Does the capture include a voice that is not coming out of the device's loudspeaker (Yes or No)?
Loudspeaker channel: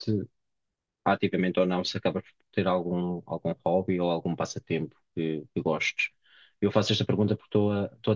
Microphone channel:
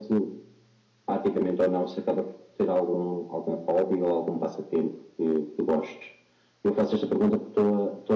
No